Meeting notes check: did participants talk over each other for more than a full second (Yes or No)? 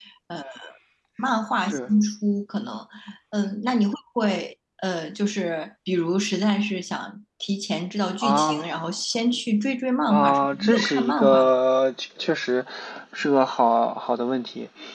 Yes